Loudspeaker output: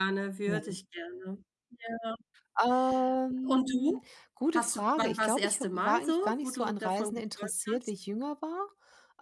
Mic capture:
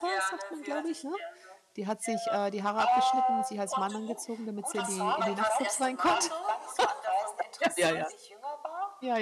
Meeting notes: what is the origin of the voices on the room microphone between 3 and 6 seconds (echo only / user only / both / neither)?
both